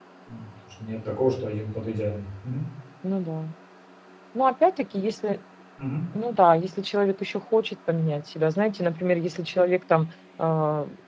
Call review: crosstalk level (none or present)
none